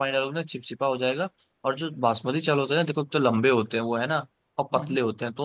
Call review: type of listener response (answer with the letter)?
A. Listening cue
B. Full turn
A